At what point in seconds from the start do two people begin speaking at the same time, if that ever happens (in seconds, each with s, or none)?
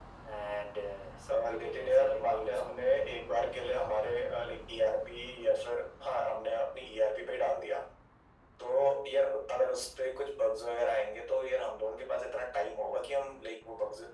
1.3 s